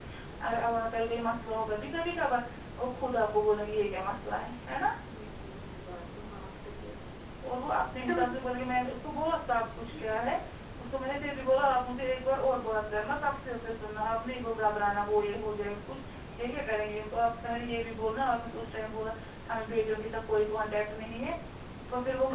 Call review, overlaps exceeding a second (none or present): none